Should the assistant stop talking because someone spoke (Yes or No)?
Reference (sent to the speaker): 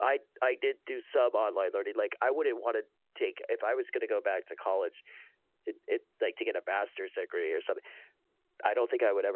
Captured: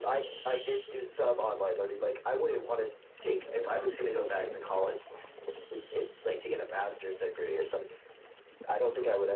No